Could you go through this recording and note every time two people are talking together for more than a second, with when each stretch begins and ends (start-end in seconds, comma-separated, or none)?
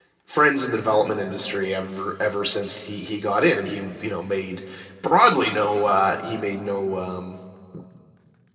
none